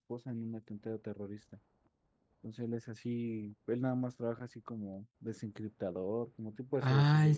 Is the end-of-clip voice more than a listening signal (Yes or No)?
Yes